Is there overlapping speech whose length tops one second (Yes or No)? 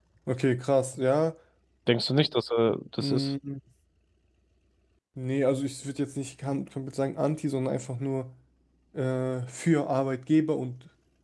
No